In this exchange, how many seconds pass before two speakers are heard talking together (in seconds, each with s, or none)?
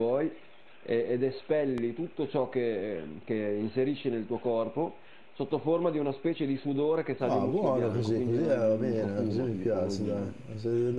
7.2 s